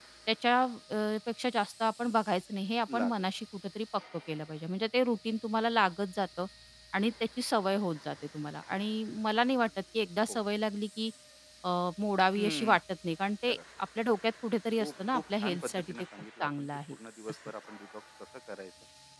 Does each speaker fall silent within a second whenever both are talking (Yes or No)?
No